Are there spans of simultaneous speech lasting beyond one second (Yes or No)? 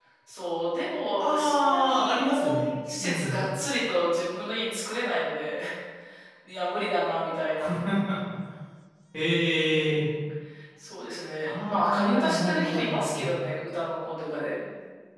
Yes